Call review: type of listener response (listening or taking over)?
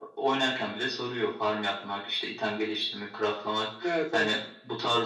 listening